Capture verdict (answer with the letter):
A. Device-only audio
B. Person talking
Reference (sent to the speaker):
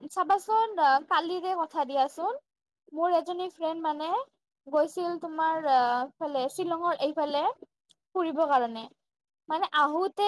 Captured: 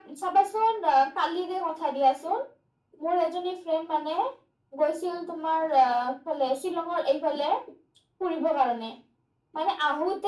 A